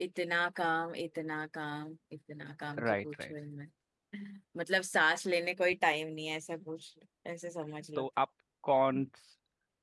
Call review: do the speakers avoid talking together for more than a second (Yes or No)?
Yes